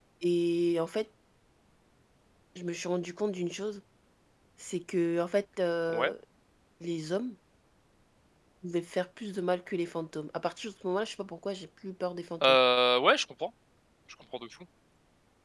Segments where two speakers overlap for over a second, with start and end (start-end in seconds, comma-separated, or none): none